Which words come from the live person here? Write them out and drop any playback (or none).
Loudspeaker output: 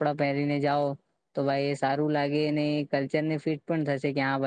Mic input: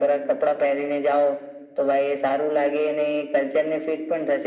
none